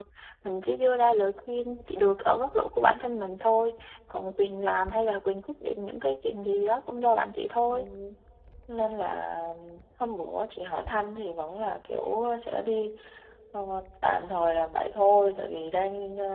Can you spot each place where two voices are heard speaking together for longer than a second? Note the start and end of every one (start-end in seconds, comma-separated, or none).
none